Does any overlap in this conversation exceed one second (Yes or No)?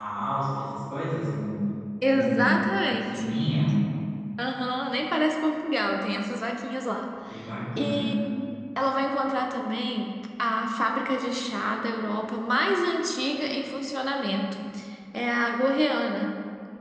Yes